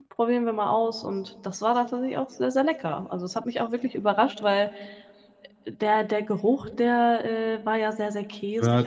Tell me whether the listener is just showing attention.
No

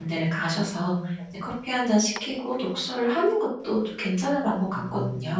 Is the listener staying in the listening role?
No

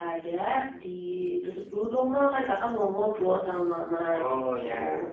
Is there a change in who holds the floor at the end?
No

